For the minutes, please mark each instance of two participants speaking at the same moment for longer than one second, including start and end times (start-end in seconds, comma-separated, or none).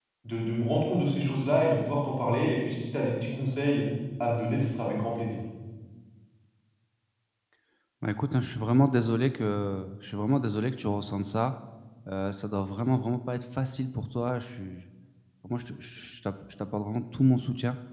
none